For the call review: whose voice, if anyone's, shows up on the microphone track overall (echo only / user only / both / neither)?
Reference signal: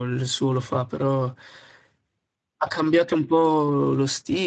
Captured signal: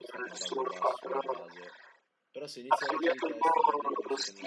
both